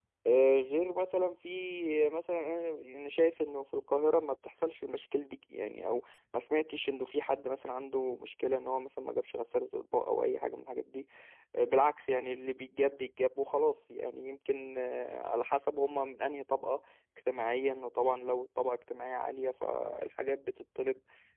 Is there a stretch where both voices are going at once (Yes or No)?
No